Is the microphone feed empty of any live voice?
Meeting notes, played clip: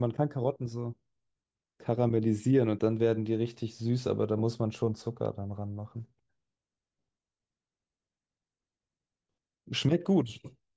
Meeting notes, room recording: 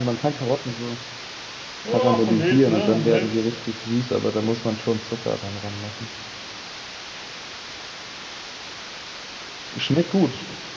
No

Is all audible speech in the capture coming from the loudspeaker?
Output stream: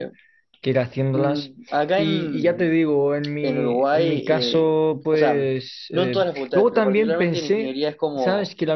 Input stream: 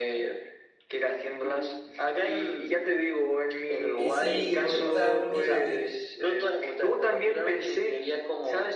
No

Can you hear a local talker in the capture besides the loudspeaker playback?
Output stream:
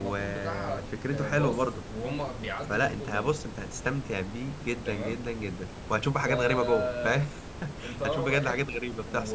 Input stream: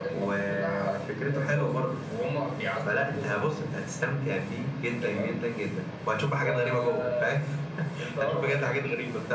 No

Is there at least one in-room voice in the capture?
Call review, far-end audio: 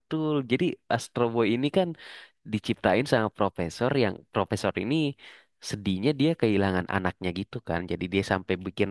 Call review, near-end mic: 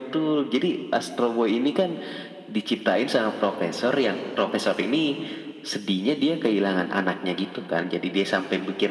No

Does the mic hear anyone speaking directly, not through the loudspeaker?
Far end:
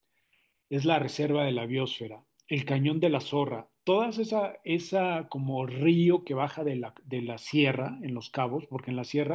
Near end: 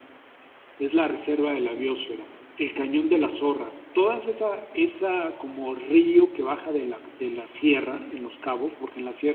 No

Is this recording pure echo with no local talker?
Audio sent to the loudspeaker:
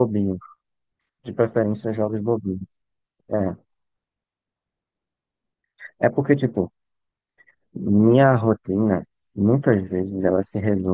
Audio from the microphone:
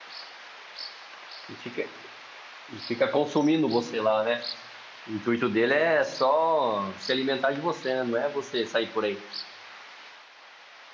No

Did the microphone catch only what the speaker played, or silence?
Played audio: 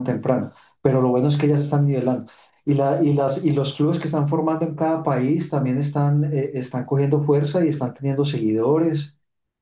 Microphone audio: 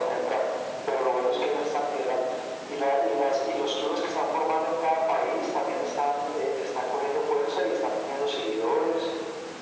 Yes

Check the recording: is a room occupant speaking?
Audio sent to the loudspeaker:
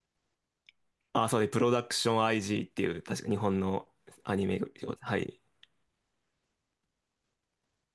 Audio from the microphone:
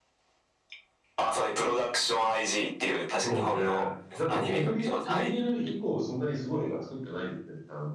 Yes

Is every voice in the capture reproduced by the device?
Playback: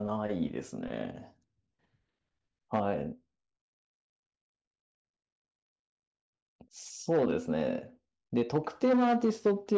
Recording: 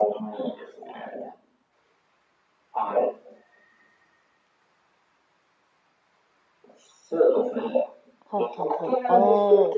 No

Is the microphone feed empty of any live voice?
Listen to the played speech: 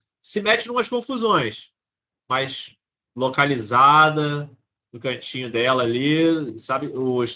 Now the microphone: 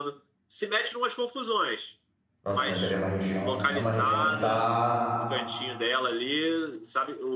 No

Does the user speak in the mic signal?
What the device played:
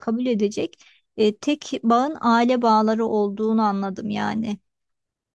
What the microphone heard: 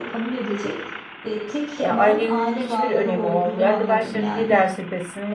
Yes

